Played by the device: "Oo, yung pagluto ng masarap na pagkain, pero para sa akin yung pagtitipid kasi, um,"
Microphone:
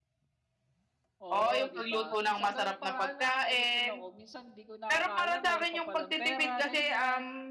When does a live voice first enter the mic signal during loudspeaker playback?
1.2 s

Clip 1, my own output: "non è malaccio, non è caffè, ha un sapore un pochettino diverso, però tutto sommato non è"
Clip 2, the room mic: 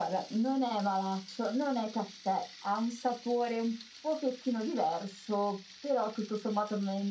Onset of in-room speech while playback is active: none

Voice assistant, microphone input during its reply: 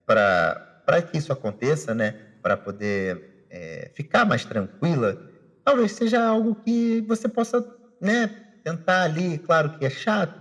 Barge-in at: none

